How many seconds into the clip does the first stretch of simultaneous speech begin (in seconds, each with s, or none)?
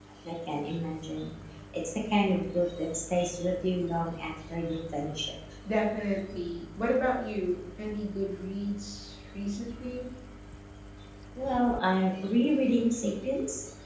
none